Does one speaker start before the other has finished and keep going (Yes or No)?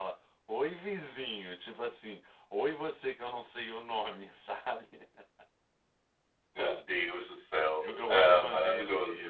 Yes